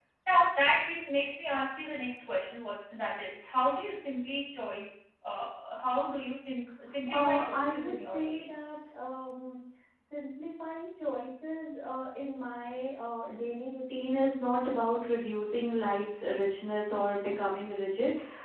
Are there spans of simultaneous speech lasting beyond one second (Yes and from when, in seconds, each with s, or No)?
Yes, from 6.9 s